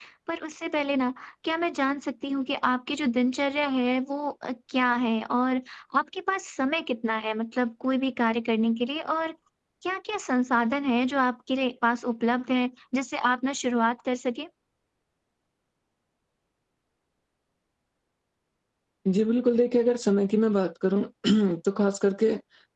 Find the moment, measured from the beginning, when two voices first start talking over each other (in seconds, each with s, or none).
none